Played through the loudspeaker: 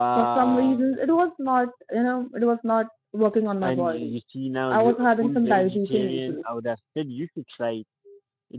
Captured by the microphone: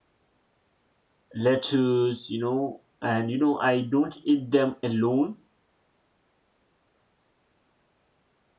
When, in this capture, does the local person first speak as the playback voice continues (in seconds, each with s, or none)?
1.3 s